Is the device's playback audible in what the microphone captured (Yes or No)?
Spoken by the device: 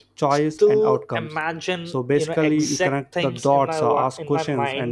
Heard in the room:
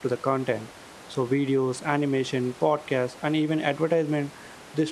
No